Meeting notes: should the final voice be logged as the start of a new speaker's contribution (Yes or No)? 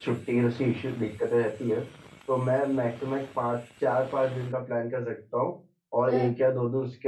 No